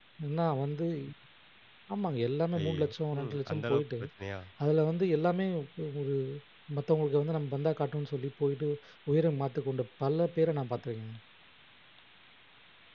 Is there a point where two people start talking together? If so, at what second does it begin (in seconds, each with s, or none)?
2.6 s